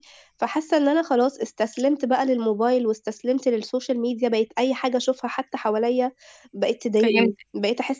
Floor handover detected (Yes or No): No